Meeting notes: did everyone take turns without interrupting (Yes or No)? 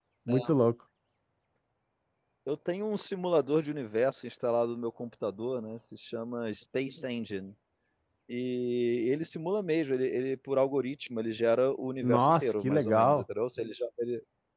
No